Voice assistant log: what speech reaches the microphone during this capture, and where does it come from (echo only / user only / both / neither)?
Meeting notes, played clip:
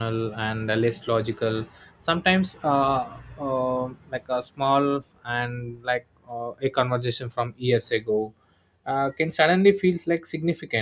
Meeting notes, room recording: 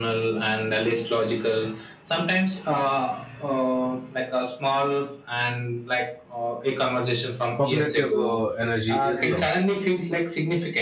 both